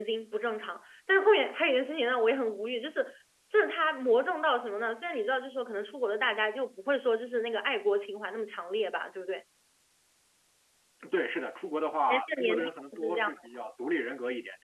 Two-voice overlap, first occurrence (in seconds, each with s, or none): 12.1 s